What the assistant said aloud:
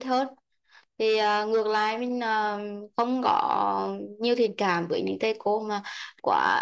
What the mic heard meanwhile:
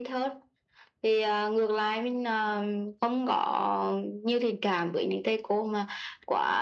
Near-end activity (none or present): none